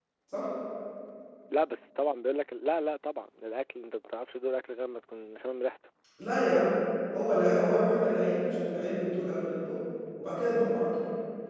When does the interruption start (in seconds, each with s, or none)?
none